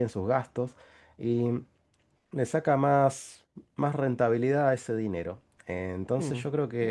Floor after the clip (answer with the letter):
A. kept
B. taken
A